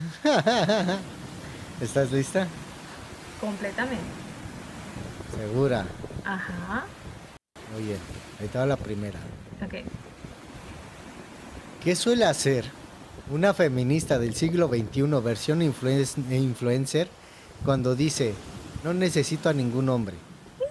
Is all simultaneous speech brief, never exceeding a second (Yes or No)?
Yes